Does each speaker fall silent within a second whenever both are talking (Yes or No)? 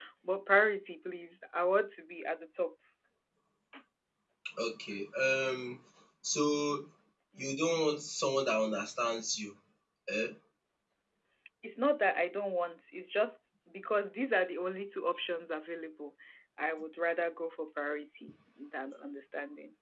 Yes